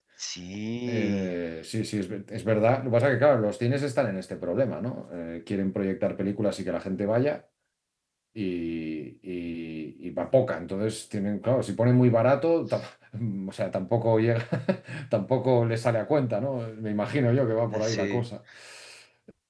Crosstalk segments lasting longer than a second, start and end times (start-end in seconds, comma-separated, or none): none